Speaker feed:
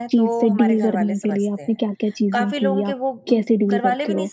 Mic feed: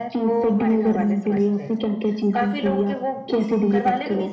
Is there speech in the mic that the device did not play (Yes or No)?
No